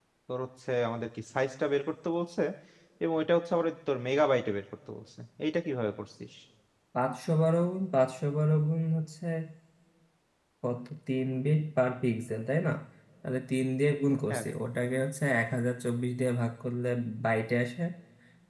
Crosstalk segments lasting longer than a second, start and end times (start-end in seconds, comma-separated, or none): none